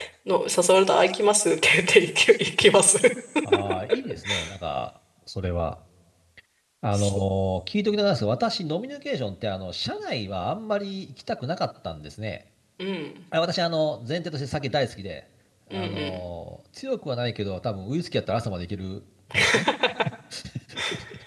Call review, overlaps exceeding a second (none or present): none